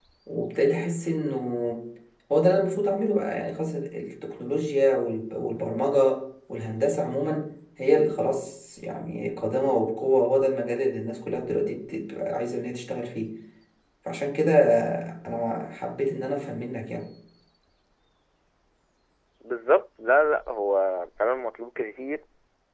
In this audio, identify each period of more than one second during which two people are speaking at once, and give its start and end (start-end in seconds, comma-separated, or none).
none